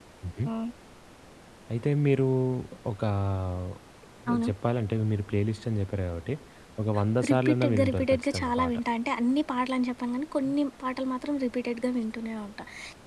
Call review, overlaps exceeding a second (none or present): present